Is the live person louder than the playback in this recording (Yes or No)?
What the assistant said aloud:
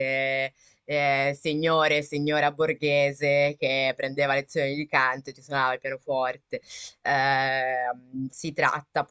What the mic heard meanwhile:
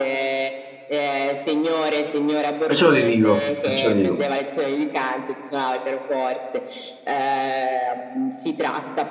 Yes